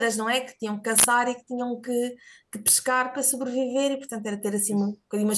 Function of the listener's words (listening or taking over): listening